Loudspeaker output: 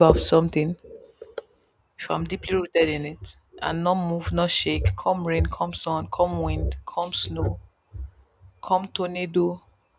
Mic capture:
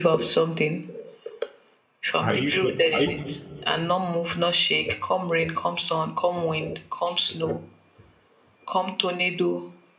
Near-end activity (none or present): present